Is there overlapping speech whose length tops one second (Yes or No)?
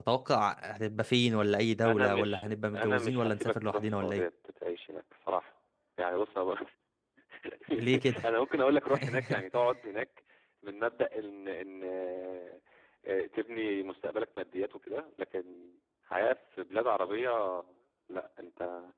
Yes